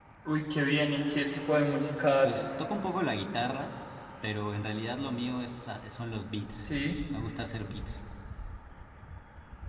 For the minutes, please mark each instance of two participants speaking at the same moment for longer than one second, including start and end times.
none

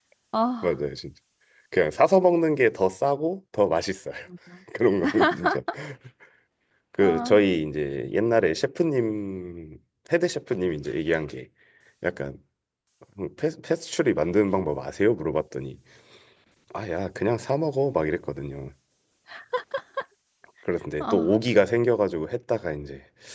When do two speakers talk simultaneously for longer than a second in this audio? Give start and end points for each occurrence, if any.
none

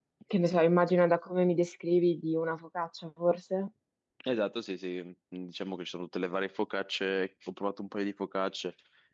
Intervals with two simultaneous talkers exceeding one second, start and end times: none

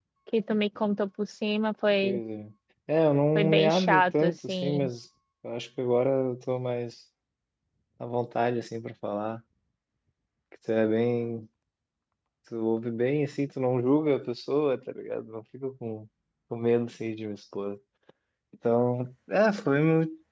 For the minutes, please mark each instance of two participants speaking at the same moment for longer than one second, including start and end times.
3.4-4.9

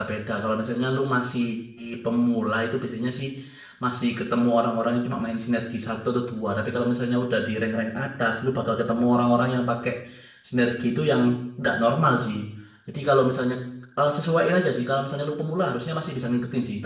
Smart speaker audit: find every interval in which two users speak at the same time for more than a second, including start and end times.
none

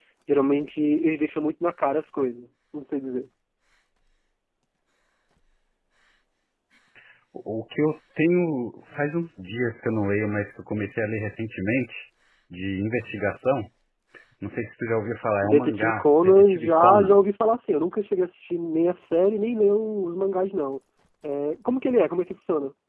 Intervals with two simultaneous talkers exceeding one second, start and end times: 15.4-17.2

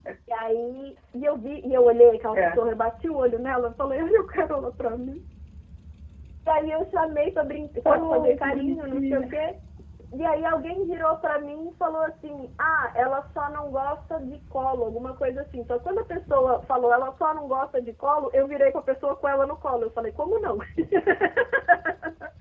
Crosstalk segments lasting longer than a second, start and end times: 7.8-9.2

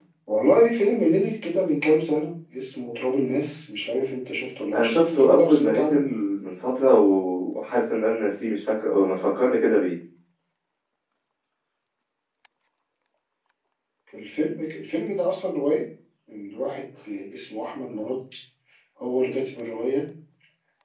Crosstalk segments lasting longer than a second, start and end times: 4.7-6.0

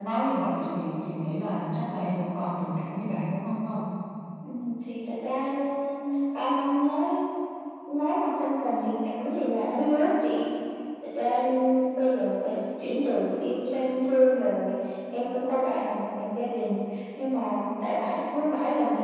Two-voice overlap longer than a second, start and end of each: none

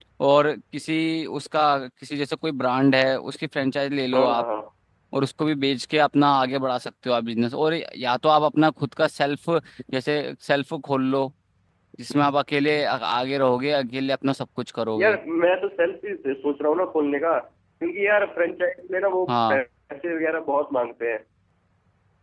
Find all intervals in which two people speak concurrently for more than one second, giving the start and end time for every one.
none

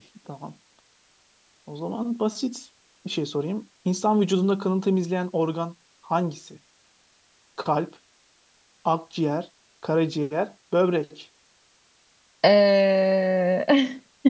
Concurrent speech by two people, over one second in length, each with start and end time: none

